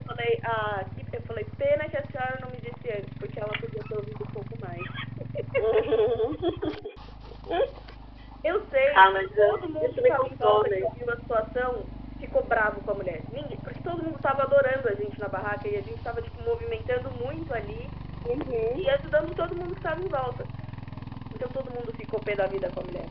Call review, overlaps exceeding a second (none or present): present